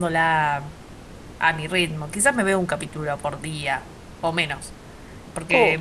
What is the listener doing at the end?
listening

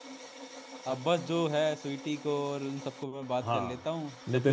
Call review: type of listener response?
taking over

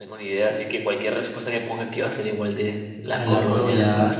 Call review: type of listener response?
taking over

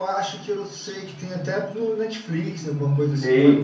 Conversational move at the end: taking over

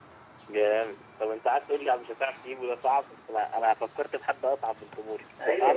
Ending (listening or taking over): taking over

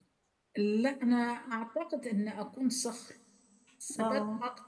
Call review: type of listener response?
listening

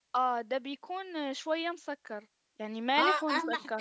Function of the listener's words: taking over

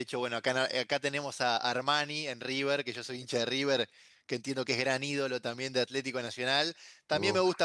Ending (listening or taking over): listening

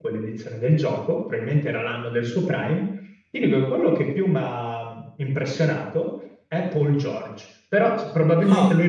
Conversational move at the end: listening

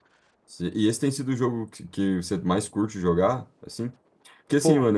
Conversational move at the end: listening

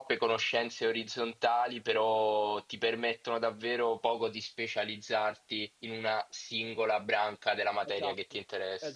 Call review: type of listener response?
taking over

